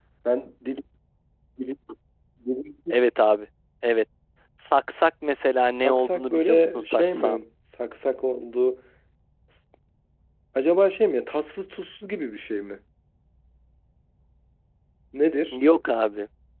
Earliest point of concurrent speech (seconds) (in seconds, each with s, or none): 5.8 s